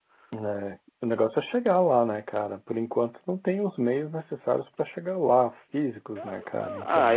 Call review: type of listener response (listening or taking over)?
taking over